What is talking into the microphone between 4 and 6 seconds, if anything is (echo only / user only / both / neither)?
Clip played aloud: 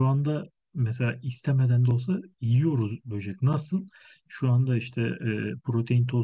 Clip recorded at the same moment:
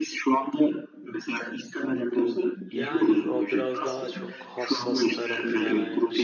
both